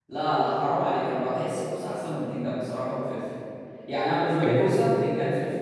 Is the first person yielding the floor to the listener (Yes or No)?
No